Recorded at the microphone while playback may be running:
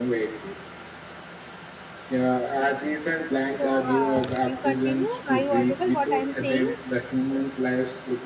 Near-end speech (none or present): present